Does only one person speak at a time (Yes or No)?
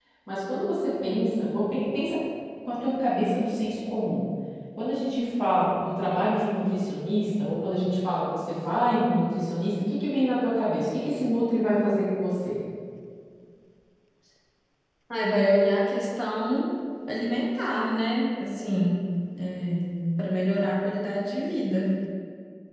Yes